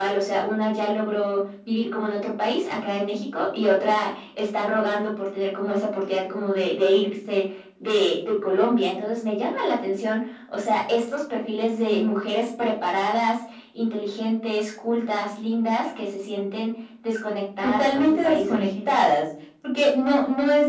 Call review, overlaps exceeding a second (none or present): present